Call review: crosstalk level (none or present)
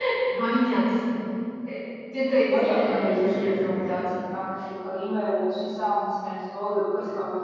present